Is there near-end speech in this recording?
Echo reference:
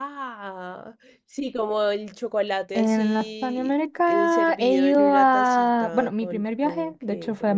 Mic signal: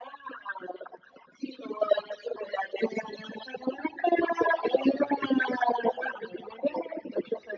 No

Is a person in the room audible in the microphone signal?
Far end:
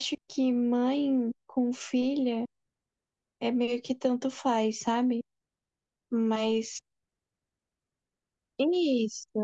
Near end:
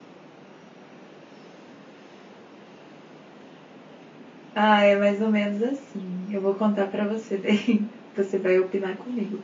Yes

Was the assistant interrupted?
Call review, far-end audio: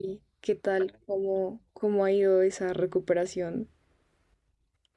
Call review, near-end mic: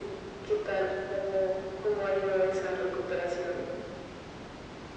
No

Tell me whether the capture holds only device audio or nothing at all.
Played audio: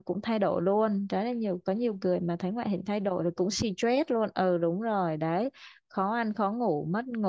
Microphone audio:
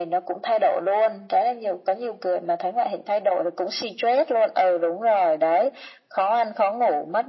Yes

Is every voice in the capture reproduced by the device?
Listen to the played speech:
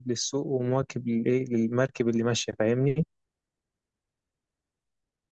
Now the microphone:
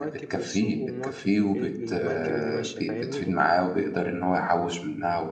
No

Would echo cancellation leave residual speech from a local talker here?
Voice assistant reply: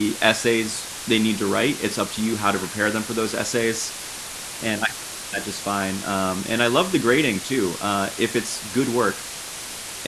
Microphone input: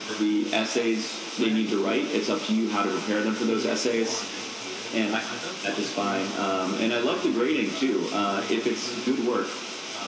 Yes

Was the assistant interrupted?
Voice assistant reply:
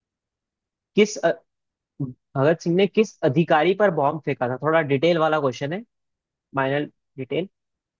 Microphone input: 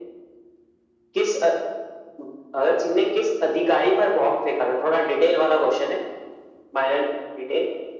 No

